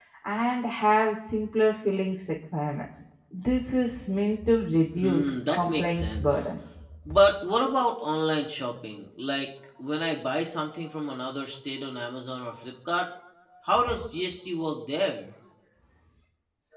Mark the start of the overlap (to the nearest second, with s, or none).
5 s